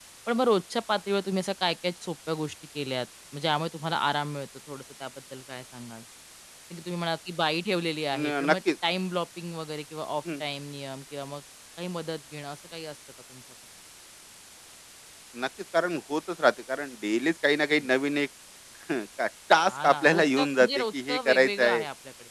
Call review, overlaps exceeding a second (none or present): present